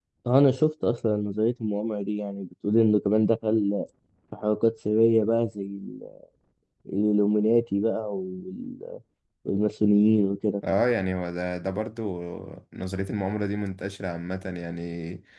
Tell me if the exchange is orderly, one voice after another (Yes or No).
Yes